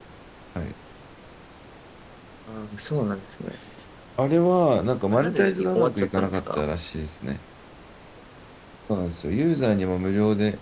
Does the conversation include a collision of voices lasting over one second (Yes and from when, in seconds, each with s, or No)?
Yes, from 5.1 s